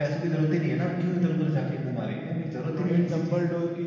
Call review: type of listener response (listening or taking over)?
taking over